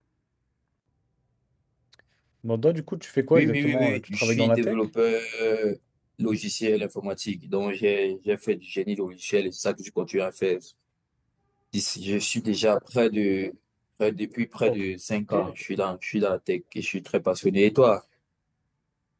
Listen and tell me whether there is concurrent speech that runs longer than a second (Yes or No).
Yes